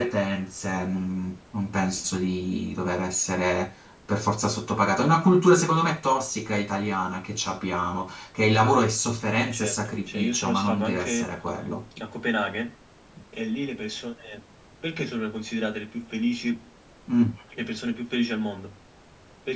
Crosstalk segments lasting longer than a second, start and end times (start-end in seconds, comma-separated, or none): 9.5-11.3